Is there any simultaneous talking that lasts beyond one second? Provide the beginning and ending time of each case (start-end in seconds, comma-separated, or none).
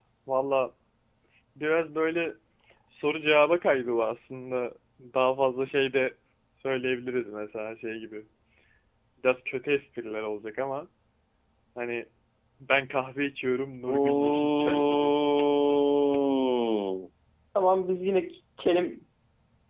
13.9-15.1